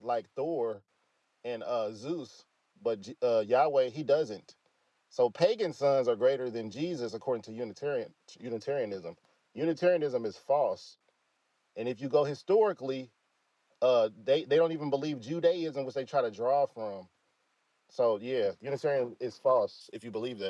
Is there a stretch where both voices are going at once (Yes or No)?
No